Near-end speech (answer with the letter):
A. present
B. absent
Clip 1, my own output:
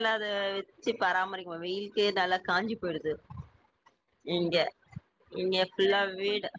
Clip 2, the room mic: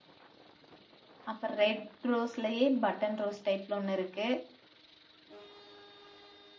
A